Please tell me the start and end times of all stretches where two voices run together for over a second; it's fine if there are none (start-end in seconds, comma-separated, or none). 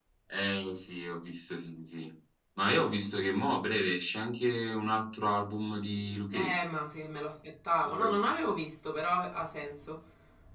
none